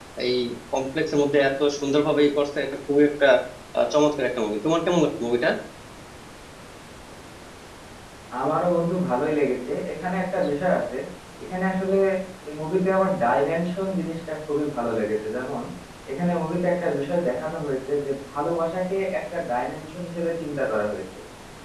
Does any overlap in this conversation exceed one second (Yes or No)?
No